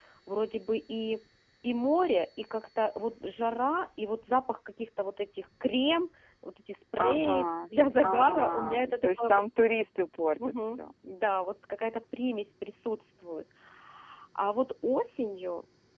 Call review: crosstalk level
present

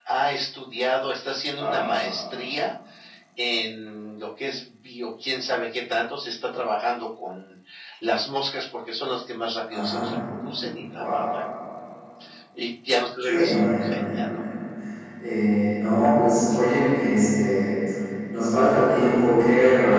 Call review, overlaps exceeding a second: present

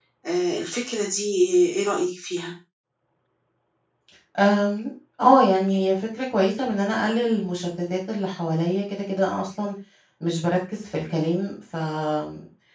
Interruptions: none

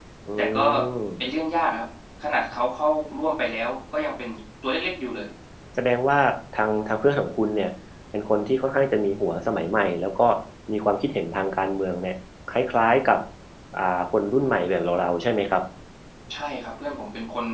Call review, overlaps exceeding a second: none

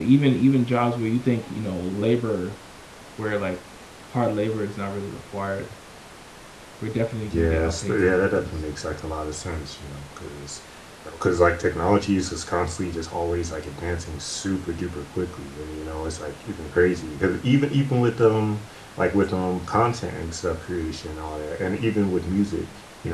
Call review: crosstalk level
present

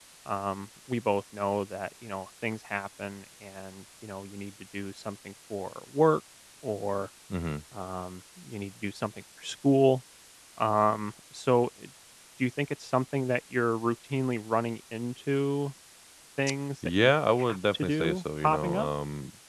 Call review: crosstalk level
present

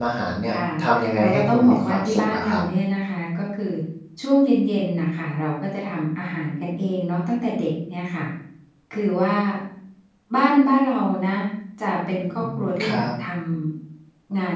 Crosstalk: present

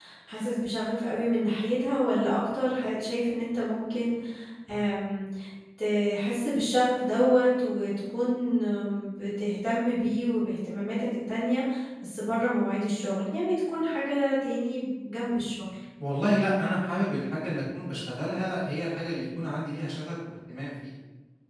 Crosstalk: none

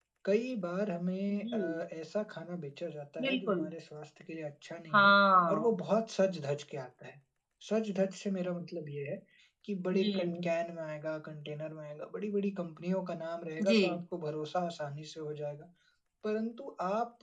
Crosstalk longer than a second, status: none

